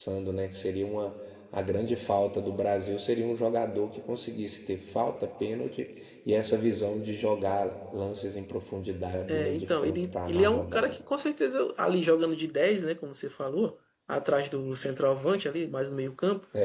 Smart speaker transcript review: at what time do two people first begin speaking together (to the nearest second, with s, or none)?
9 s